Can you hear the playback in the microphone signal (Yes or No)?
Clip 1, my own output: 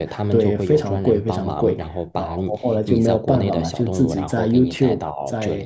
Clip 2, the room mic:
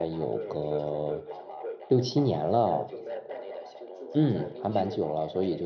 Yes